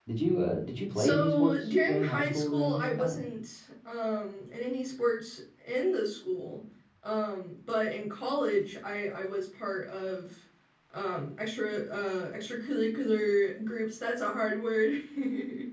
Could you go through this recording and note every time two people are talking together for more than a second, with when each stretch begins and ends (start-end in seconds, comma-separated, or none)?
1.0-3.0